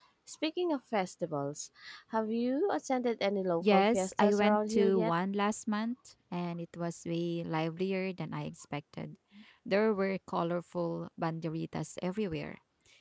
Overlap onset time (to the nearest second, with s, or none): 4 s